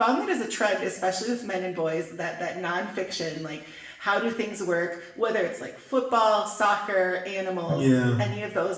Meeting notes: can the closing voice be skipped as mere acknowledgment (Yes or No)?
Yes